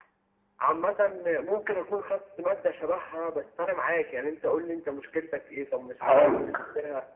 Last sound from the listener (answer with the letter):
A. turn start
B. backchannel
B